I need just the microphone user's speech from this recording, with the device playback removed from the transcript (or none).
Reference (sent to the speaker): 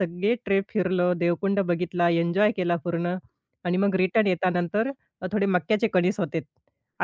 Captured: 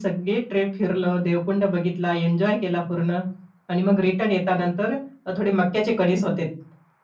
none